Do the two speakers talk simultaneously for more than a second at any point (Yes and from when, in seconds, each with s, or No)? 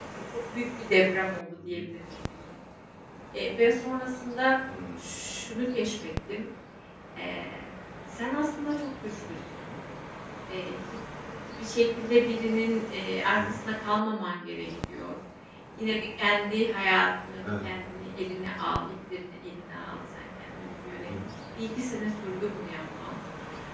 No